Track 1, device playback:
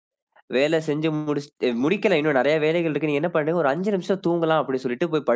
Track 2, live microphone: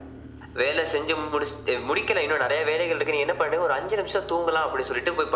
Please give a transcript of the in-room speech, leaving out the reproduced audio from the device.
none

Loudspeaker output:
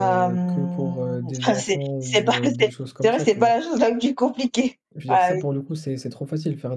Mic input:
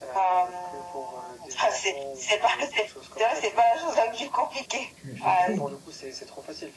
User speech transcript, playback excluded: Tu tu trouves?

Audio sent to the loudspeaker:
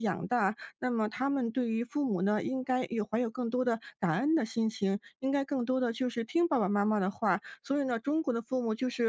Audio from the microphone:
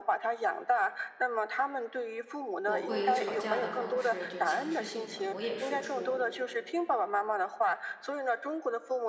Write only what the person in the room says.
我会以吵架的方式就强势性的我也输出。

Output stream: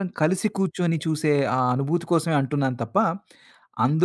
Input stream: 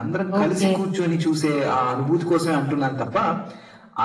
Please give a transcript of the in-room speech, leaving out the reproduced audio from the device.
ఓకే.

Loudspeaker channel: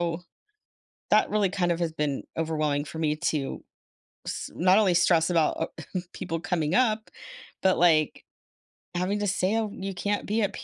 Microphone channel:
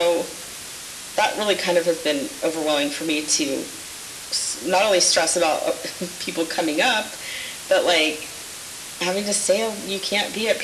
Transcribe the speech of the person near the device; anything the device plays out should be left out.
none

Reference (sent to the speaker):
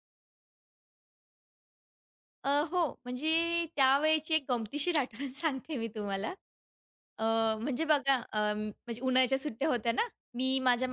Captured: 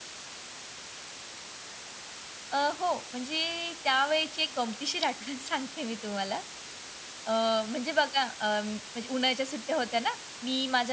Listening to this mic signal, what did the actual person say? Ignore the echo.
none

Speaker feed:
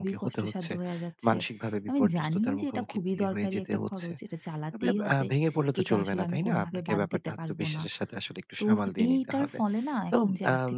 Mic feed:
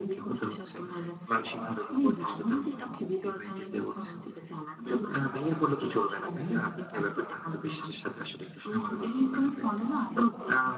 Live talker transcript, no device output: none

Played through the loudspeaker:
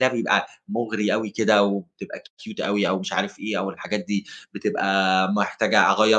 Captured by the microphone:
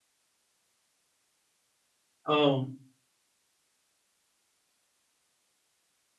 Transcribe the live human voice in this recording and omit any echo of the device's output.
آه،

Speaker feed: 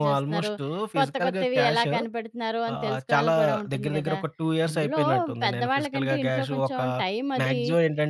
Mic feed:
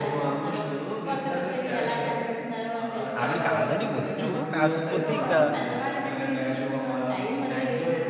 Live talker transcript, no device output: ఆవిడకి ఆల్రెడీ వచ్చు. కాకపోతే ఇక

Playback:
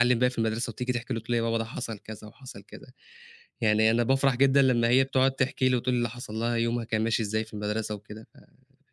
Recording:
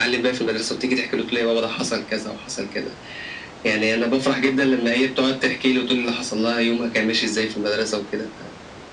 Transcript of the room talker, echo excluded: none

